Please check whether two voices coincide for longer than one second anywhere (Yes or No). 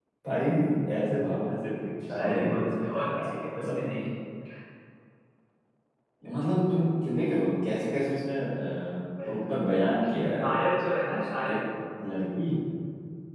Yes